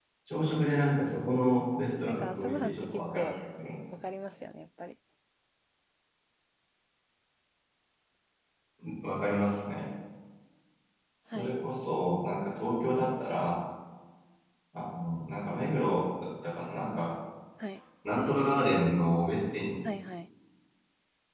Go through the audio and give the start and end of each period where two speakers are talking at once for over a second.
2.0-3.3

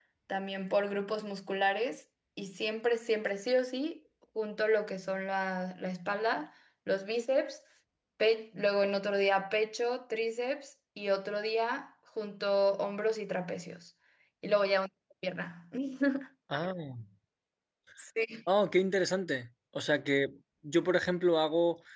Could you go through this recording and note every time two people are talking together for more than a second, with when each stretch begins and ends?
none

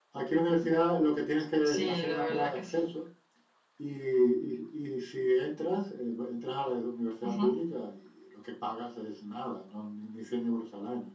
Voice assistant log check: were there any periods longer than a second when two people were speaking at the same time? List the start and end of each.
1.6-2.9

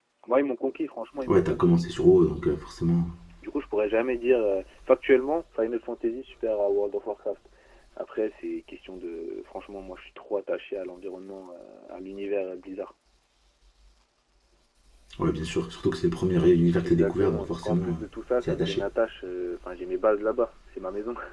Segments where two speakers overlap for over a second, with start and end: 16.8-18.0

